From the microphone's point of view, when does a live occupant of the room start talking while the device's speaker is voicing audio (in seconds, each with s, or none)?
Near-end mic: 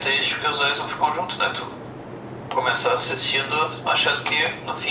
none